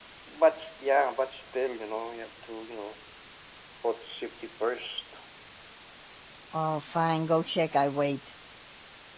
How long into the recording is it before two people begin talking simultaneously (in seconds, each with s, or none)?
none